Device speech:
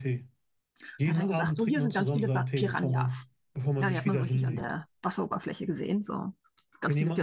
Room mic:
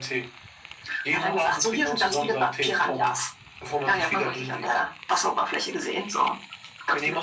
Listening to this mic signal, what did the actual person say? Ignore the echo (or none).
none